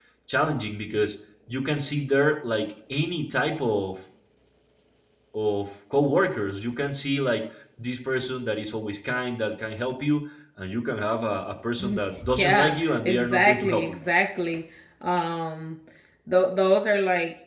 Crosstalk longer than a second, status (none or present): present